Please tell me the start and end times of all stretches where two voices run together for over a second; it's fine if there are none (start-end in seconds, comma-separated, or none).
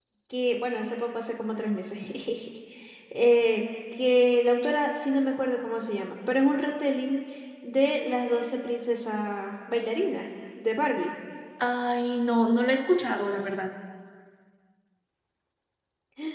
none